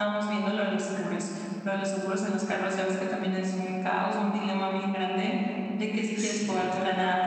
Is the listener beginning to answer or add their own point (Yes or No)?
No